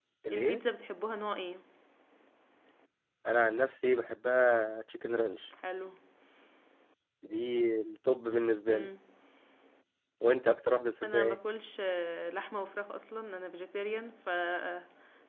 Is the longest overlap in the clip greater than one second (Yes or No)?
No